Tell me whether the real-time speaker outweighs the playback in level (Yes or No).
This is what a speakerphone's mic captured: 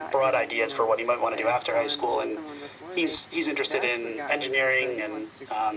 No